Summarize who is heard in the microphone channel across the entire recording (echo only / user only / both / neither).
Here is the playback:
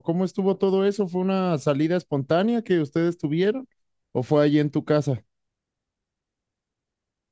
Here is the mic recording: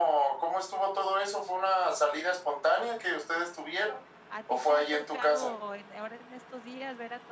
both